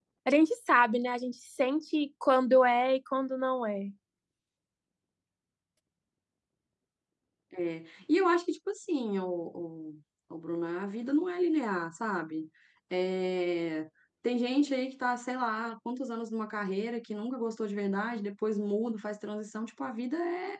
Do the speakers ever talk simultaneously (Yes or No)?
No